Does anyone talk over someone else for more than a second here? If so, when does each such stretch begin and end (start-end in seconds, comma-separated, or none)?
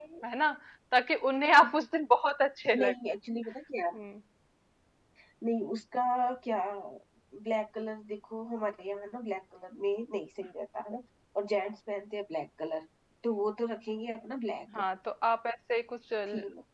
none